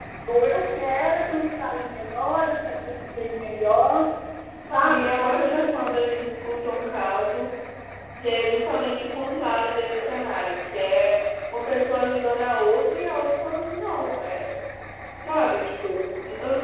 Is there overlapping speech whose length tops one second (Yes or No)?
Yes